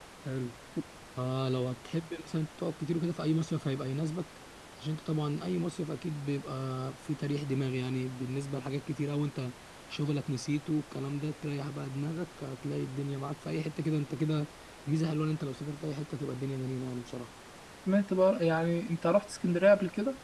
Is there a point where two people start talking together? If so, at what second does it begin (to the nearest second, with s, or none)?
none